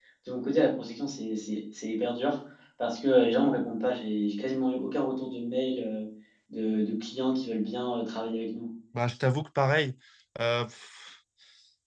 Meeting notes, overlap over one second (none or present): none